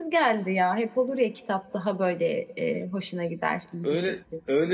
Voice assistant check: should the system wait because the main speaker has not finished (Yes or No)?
No